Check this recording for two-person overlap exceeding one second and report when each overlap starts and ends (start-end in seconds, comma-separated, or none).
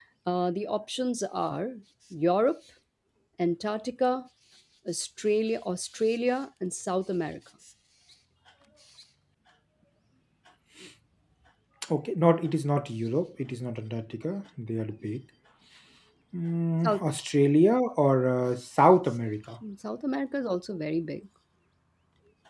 none